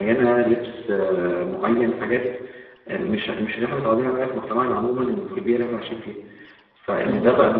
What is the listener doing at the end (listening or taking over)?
listening